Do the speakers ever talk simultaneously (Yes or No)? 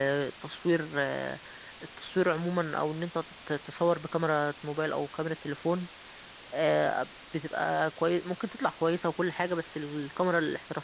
No